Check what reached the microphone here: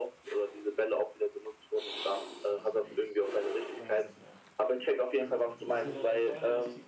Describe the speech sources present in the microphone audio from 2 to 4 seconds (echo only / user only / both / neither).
both